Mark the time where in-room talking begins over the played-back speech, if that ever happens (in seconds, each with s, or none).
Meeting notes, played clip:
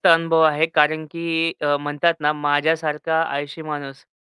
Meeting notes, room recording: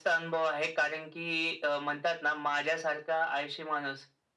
none